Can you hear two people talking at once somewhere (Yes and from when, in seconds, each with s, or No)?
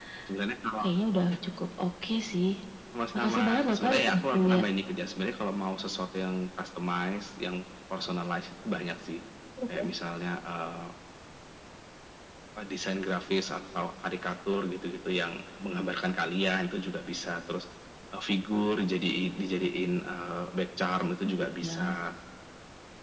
Yes, from 3.1 s